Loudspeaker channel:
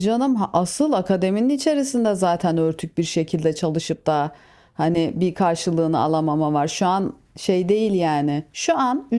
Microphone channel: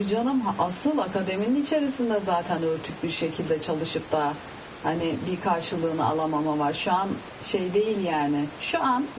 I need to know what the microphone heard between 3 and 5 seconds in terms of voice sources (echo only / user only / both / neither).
echo only